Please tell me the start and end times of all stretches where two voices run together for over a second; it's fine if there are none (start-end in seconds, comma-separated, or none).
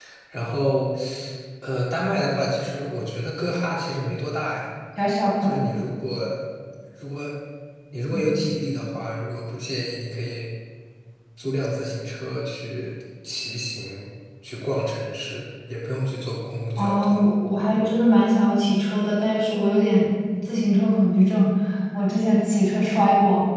none